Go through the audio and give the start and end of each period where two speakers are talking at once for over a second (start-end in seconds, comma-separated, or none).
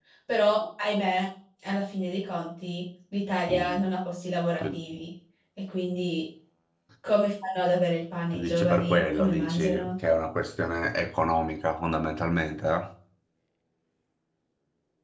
8.3-9.9